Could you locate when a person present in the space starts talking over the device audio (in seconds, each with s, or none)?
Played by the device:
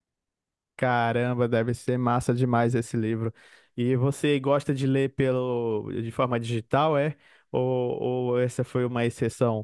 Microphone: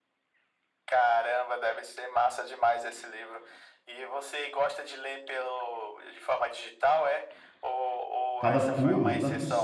8.4 s